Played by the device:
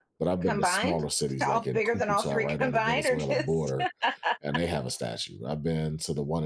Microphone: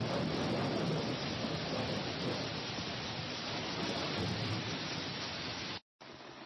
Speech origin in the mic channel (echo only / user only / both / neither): neither